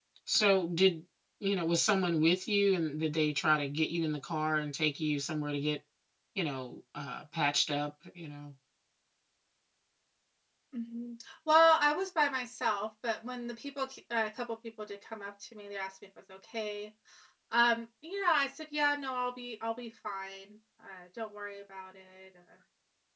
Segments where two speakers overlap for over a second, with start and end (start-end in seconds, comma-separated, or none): none